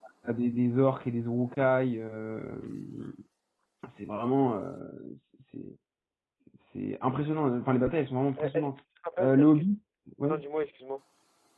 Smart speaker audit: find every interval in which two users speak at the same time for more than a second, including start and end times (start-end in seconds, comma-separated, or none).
none